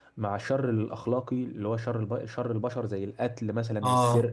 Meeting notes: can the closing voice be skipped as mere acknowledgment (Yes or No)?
Yes